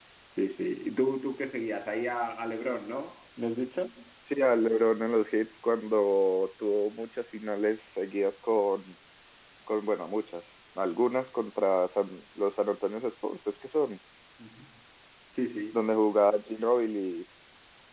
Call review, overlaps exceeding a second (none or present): none